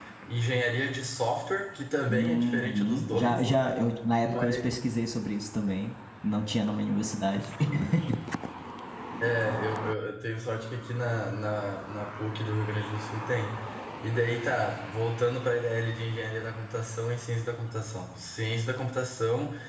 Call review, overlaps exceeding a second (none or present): present